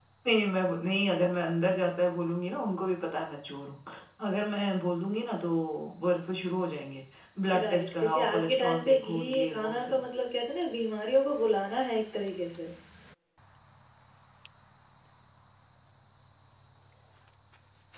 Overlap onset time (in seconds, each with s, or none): 7.6 s